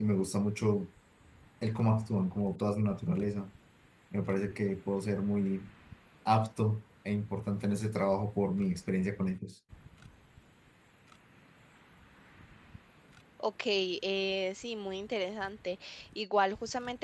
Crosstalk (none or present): none